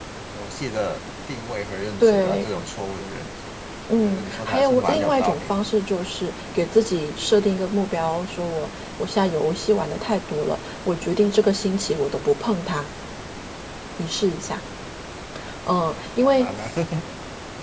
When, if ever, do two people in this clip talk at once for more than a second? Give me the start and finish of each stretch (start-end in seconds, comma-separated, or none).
4.0-5.5